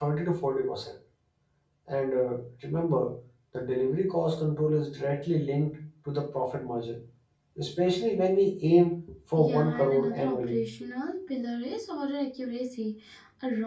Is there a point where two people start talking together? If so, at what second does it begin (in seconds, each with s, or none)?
9.4 s